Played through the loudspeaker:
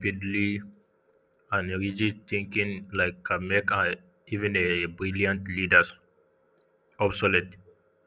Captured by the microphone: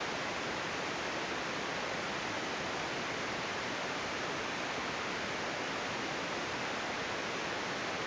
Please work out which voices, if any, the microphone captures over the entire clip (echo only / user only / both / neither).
neither